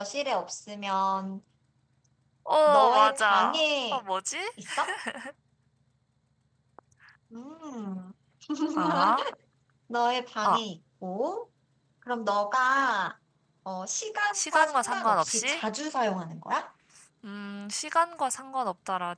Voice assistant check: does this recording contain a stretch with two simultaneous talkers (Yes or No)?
Yes